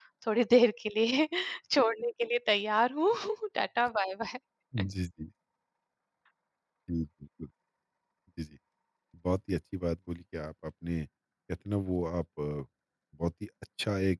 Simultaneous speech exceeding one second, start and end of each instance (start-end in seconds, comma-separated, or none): none